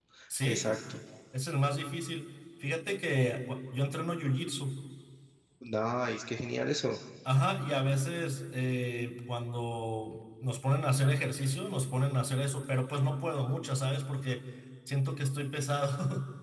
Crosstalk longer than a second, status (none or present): none